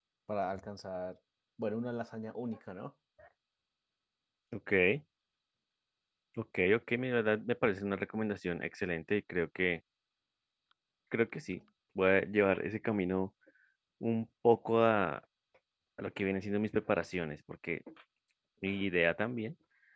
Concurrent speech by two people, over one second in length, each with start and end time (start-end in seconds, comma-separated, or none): none